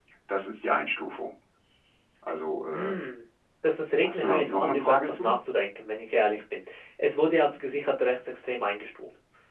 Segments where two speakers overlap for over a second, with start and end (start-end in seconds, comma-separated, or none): 4.0-5.3